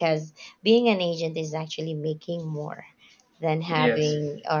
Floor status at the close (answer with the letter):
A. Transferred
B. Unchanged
B